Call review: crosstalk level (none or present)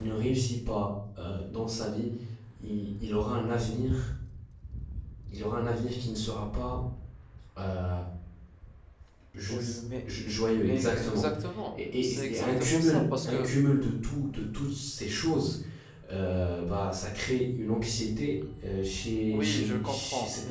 present